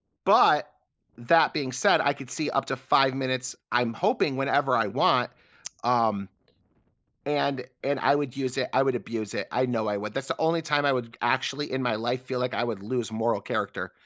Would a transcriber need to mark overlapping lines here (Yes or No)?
No